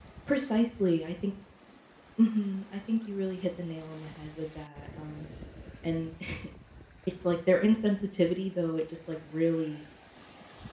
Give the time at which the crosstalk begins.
none

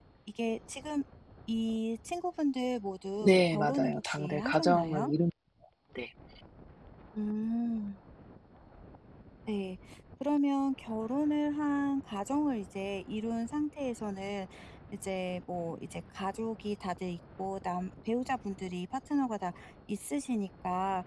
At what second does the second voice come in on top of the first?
3.2 s

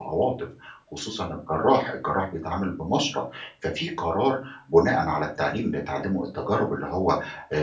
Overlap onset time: none

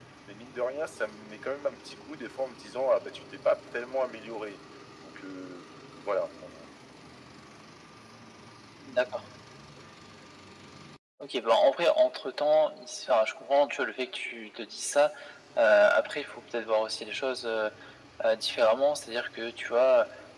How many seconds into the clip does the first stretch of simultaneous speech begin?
none

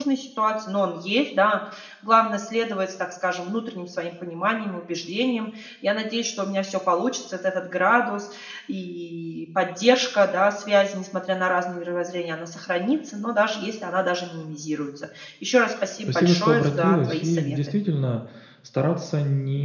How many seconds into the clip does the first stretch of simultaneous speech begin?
16.1 s

